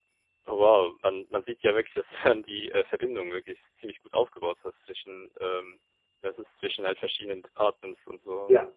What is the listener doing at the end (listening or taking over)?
taking over